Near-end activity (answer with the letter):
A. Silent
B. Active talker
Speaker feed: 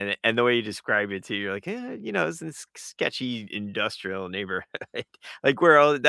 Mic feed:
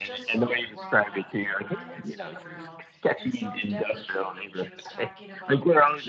B